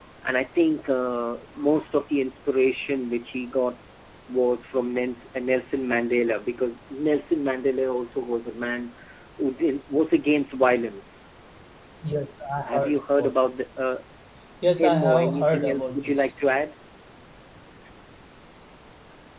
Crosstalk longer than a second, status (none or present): present